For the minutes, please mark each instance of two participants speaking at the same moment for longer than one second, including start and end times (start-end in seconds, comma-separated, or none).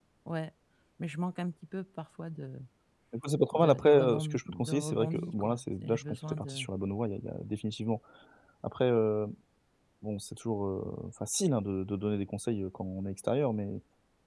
3.5-6.7